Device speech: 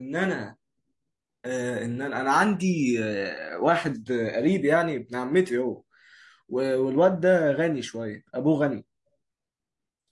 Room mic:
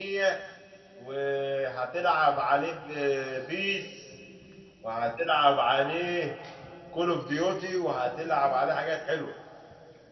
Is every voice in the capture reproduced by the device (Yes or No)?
No